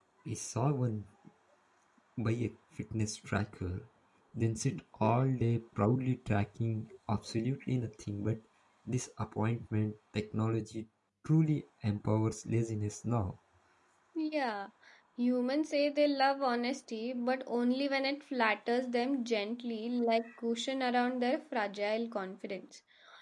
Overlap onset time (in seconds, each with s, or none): none